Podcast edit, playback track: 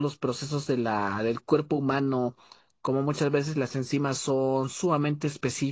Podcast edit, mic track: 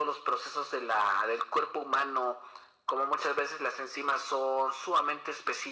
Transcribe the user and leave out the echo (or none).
none